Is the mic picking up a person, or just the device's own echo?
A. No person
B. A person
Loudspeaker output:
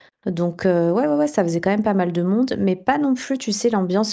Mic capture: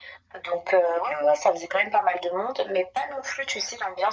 A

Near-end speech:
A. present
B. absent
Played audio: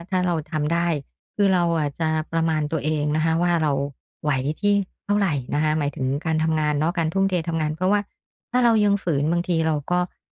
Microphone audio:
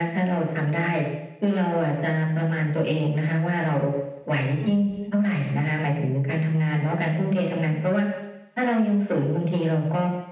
A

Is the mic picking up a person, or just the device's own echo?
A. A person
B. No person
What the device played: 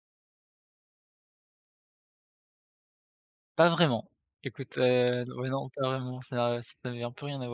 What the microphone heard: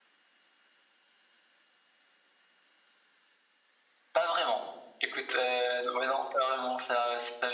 B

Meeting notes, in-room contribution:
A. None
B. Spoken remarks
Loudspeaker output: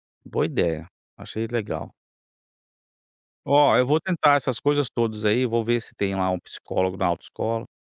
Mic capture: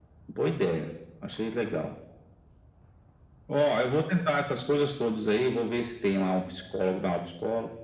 A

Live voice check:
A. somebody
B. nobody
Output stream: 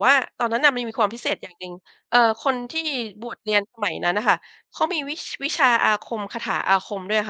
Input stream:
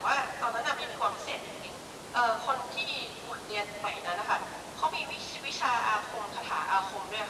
B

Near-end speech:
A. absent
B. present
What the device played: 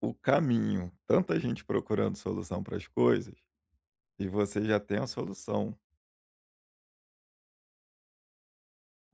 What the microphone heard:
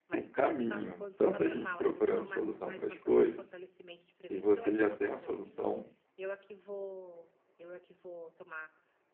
B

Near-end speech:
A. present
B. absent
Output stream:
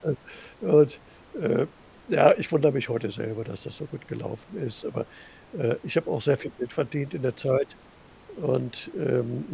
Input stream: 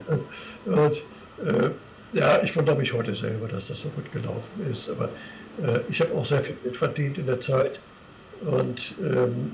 B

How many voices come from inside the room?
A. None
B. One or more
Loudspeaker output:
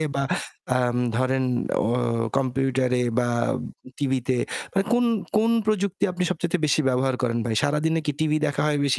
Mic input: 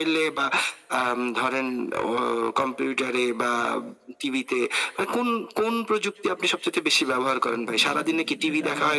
B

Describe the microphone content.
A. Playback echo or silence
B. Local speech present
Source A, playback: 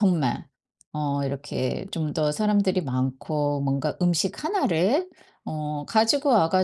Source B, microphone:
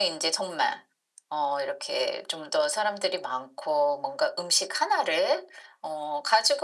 A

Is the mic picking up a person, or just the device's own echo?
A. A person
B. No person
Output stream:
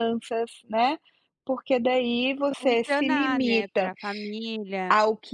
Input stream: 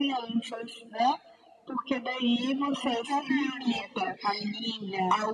B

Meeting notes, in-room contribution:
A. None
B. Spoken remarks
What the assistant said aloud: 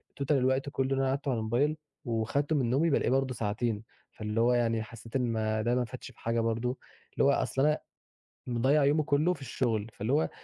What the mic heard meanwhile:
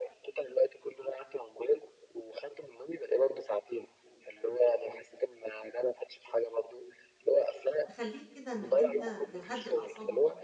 B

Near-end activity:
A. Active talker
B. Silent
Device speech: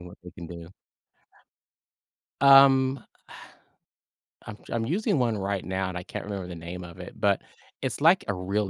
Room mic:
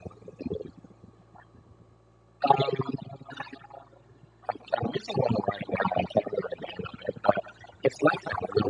B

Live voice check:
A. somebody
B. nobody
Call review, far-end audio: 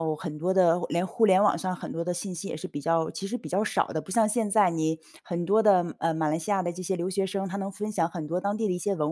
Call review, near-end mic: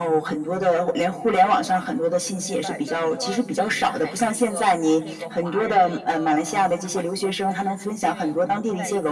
A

